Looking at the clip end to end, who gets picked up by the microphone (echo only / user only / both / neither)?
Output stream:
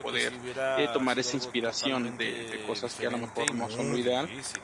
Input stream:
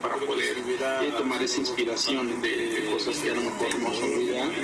both